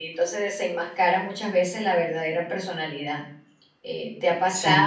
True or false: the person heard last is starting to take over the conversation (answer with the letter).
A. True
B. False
B